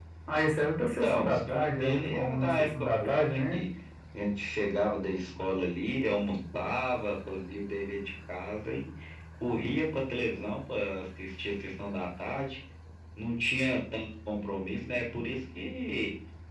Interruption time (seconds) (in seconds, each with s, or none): 1.0 s